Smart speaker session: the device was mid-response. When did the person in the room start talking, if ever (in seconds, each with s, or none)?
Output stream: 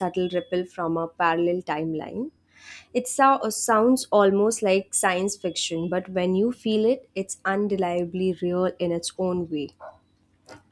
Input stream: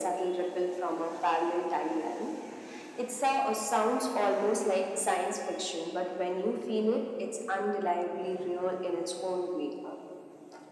none